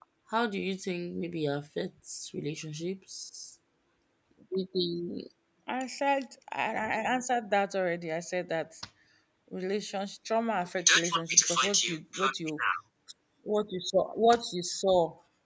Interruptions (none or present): present